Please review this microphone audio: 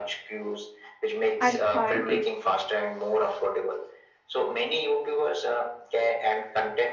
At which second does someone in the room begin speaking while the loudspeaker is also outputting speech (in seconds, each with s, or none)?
1.4 s